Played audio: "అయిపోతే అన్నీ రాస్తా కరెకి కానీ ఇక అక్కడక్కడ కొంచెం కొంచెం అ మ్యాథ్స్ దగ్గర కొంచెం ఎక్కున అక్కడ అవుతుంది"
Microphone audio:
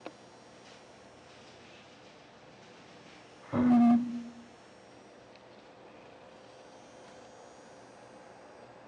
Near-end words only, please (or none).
ఉమ్,